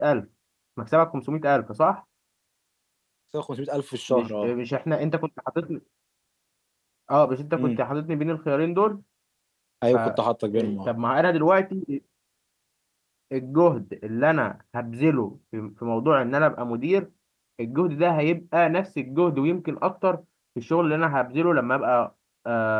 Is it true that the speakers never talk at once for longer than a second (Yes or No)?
Yes